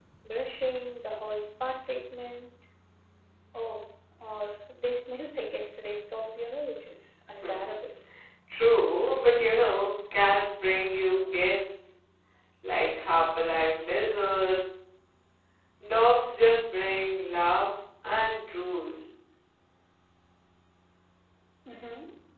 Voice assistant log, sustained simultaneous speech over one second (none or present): none